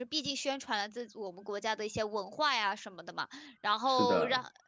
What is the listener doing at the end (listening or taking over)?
listening